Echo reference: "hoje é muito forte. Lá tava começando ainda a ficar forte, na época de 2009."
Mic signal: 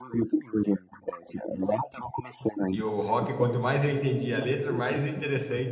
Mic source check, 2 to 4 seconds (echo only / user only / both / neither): both